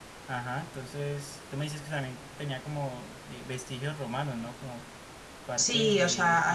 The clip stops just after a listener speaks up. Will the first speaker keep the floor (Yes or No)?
No